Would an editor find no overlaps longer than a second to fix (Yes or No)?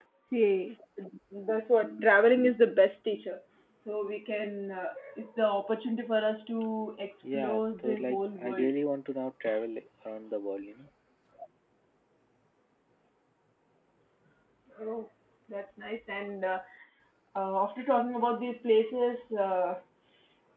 No